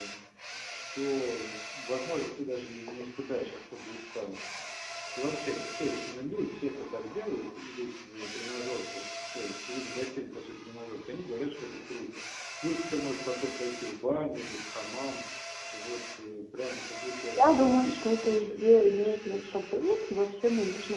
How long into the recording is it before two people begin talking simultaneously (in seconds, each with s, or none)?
17.3 s